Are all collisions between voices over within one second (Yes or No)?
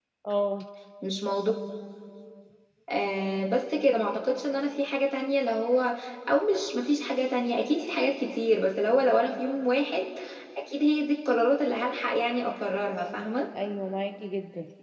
Yes